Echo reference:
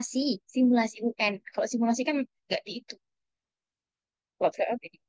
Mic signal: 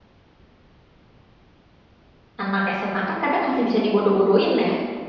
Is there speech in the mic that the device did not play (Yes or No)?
Yes